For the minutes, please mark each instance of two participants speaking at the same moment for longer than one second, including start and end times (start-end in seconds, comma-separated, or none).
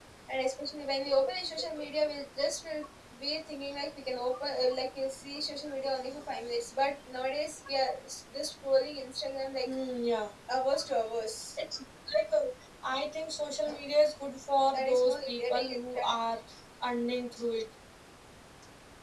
14.7-16.1